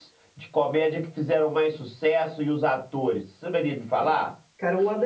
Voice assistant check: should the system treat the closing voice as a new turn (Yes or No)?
Yes